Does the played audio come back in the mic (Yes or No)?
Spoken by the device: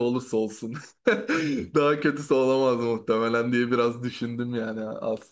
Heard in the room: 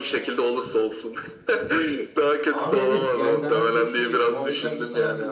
Yes